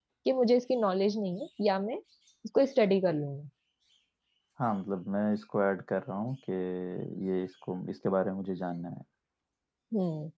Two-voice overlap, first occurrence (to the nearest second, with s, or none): none